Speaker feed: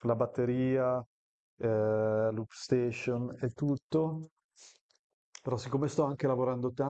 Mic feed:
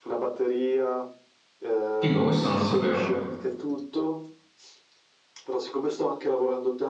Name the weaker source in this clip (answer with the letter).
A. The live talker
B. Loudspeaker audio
B